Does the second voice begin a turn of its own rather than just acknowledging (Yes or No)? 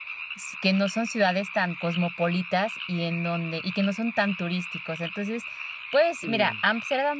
No